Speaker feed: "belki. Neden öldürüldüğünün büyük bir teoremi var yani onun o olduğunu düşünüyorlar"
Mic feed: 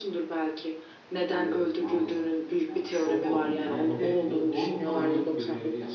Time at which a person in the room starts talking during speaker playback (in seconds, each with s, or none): 1.3 s